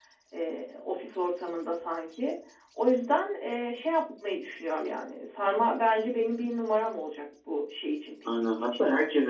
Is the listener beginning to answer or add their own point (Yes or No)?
Yes